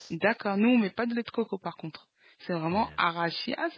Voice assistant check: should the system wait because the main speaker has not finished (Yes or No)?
Yes